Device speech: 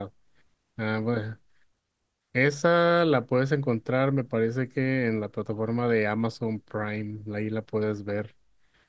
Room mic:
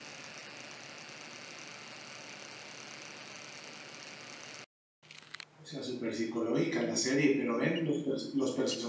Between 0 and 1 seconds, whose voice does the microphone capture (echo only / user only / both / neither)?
neither